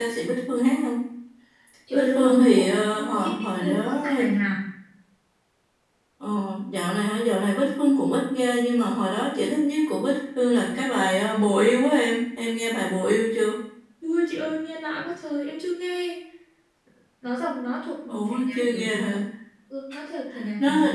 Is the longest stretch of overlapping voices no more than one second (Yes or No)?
No